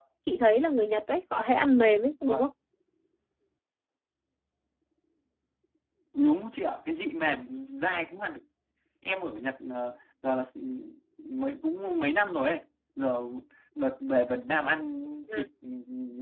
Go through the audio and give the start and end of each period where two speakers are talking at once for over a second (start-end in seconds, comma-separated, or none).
none